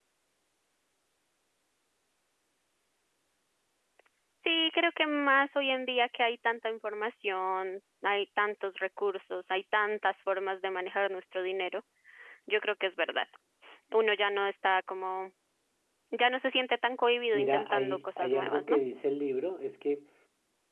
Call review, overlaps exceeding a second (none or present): present